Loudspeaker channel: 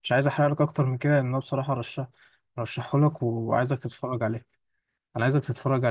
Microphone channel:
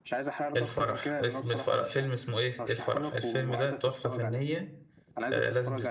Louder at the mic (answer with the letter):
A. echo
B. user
B